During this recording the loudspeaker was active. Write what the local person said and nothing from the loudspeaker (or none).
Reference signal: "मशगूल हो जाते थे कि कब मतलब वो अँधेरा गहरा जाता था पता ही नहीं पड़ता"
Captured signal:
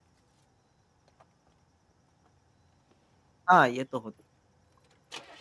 हाँ ये तो होत